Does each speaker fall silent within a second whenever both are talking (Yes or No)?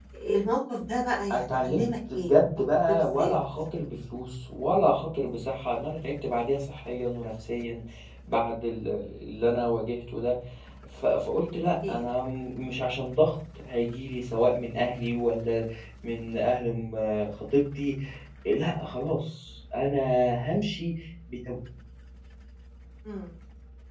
No